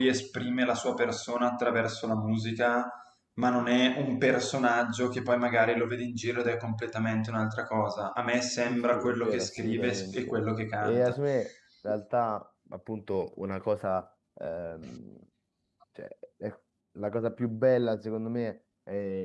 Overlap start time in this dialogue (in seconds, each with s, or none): 8.7 s